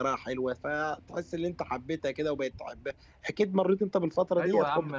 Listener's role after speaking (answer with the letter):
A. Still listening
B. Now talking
B